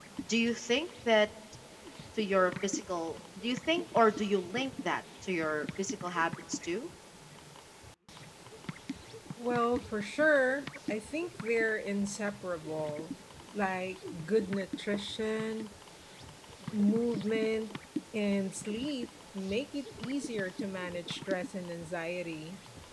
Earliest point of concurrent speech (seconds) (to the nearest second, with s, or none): none